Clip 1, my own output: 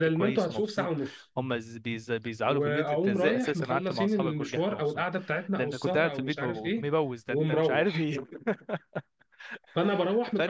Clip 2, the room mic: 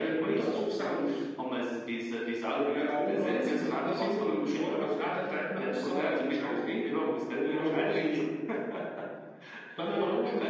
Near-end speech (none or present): none